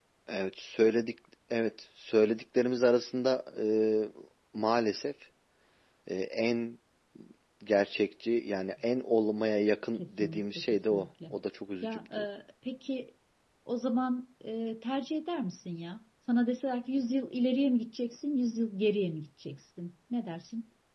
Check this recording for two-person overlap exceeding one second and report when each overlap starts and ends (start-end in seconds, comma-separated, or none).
10.0-11.3